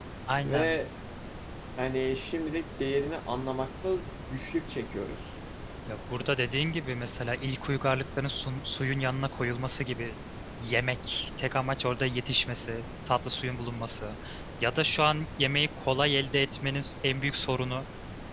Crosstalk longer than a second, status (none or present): none